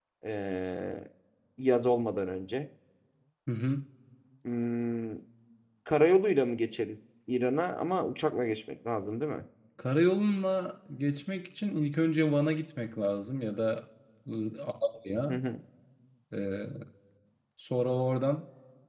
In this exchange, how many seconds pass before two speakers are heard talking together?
none

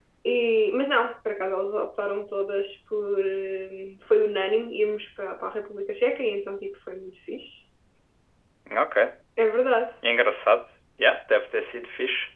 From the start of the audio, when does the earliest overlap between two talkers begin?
none

